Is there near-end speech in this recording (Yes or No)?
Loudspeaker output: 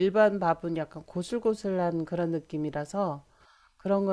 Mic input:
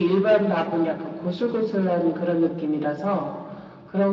No